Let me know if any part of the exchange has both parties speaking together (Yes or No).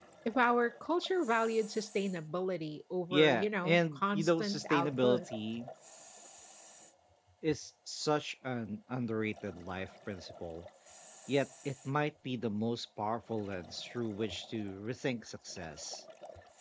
Yes